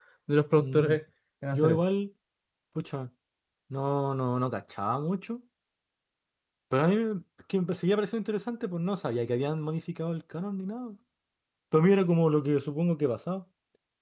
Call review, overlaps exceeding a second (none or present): none